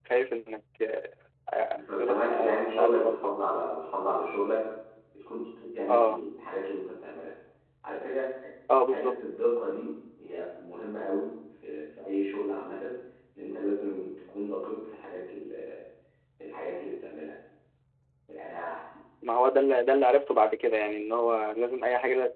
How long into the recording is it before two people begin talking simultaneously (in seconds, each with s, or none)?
2.0 s